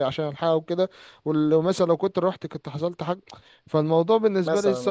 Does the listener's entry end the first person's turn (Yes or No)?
No